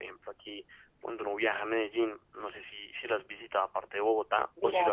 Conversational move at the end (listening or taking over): taking over